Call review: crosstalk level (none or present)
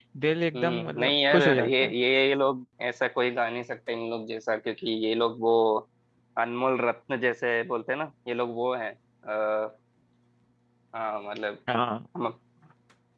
present